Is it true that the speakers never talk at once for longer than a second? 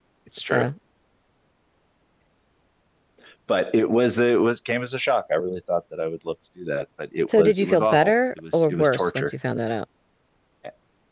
No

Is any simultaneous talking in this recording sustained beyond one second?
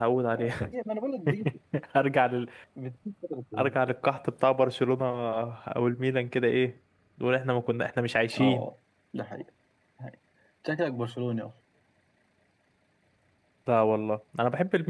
No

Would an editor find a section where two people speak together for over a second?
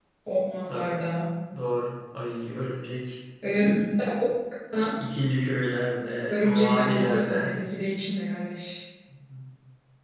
Yes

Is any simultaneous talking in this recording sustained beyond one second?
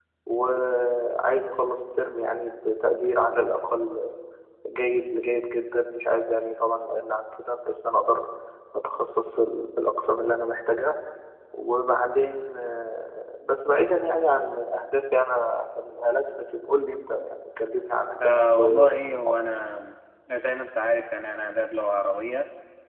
Yes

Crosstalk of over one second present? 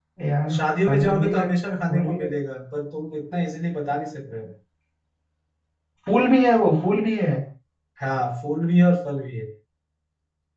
Yes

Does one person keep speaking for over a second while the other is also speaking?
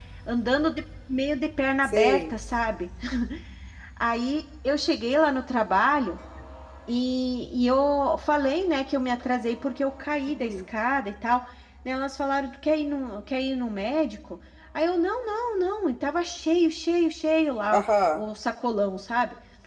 No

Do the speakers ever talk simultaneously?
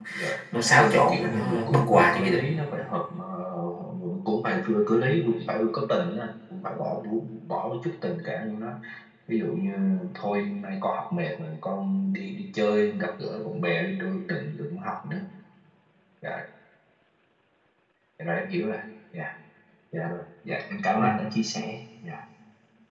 Yes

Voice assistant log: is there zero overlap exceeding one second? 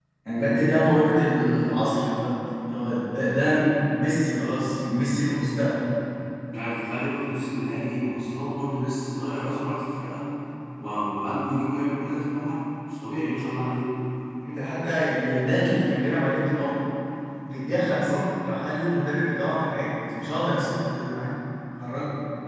Yes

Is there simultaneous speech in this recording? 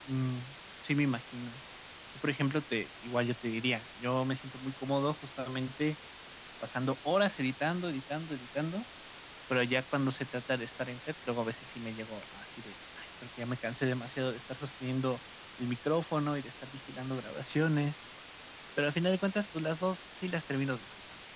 No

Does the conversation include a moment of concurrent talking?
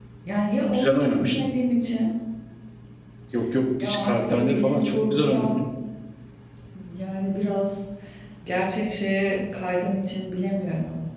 Yes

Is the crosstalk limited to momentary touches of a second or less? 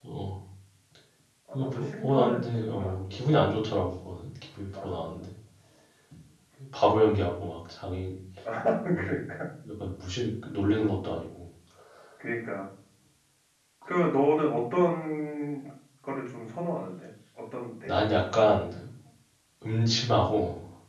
No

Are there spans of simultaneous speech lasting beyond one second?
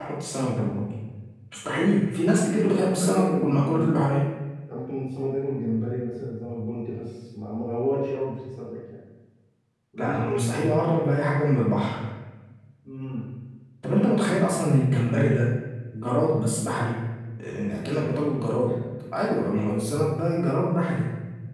Yes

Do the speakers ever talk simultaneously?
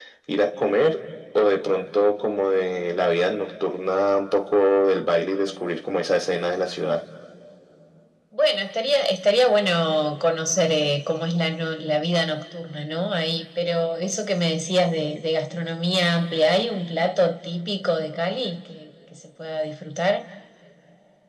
No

